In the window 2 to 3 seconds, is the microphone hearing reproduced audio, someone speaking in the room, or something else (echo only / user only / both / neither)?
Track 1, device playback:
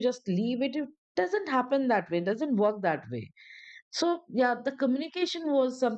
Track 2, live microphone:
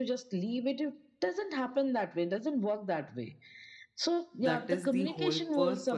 echo only